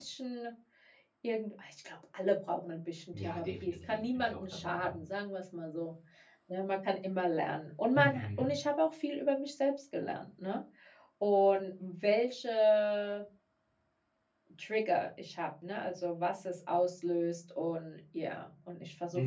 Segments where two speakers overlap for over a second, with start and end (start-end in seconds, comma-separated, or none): 3.1-5.0